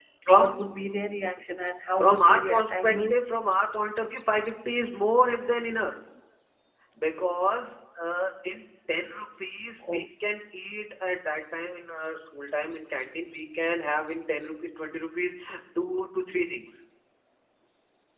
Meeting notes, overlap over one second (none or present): present